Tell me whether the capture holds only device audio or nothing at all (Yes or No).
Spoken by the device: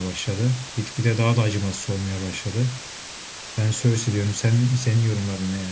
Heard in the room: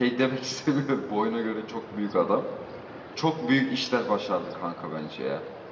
No